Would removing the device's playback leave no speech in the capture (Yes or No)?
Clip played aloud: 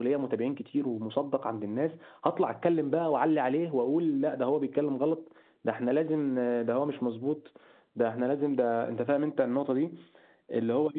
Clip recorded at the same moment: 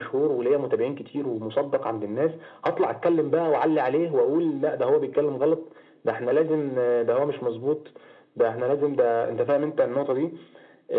Yes